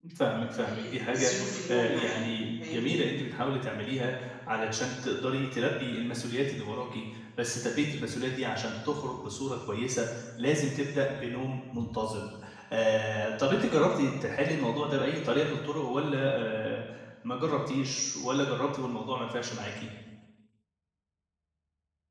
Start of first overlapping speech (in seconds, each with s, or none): 0.6 s